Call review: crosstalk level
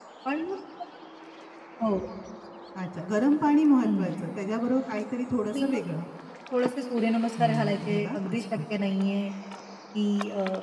present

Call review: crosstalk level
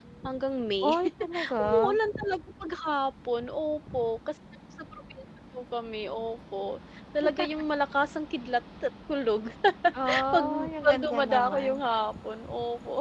present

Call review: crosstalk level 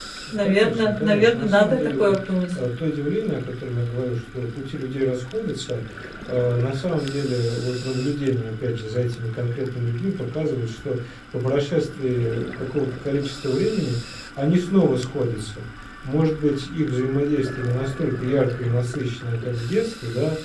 present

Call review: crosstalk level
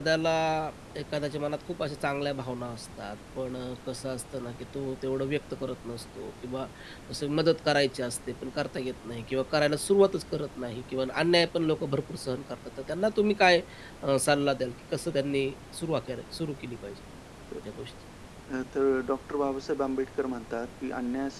none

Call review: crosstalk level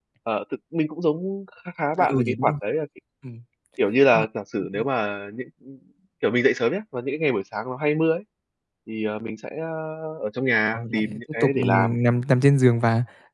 present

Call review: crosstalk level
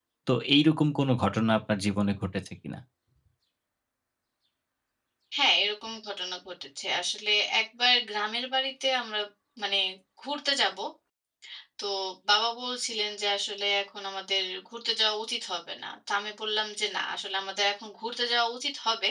none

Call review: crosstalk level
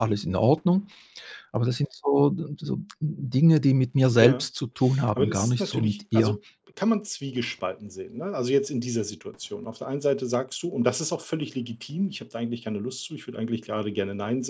present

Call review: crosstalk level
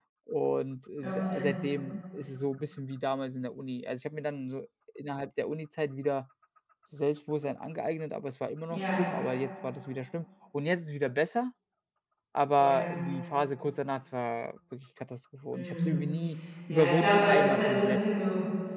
present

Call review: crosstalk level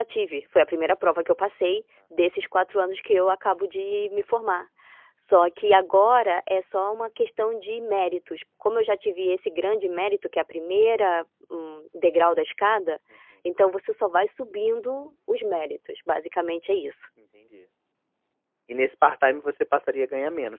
none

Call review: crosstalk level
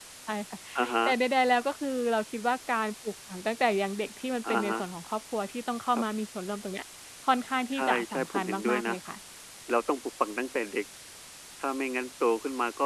present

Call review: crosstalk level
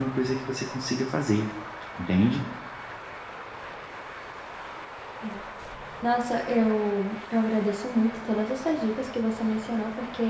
none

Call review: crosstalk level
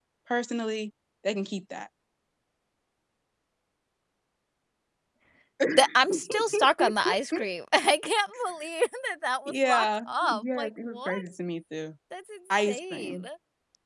present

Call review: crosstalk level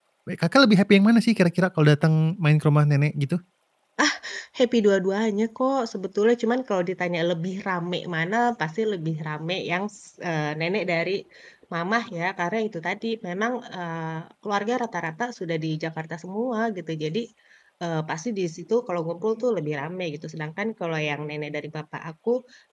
none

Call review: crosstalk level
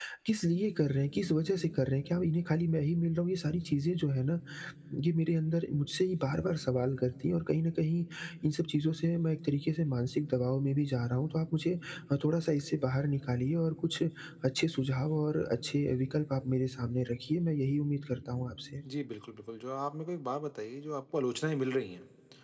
none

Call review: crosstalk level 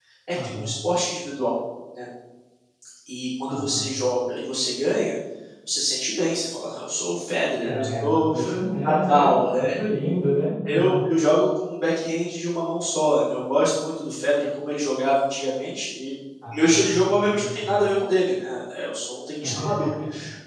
present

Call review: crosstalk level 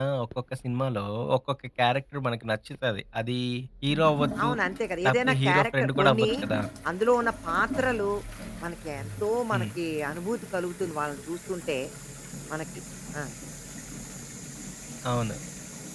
present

